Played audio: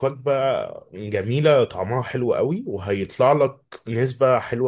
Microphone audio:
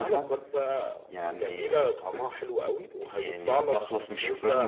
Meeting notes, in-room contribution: present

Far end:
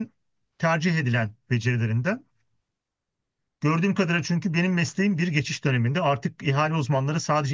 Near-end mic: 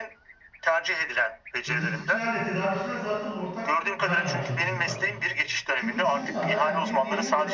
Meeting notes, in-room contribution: present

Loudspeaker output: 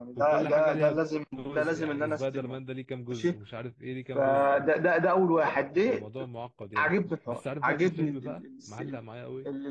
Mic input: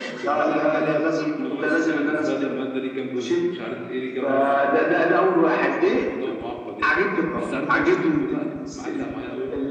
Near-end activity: none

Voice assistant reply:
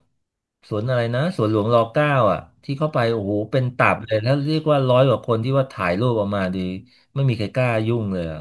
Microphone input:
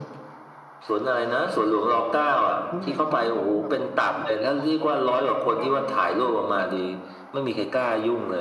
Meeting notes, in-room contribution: present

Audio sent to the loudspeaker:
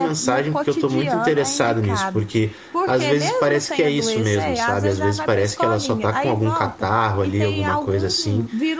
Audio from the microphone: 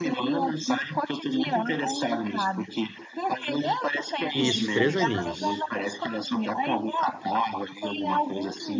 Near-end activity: present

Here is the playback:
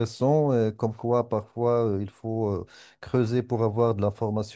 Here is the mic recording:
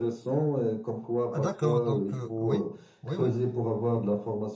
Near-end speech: present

